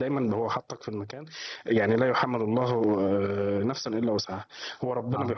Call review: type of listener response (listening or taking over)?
listening